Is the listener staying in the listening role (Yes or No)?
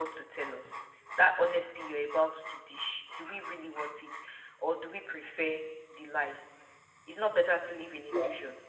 No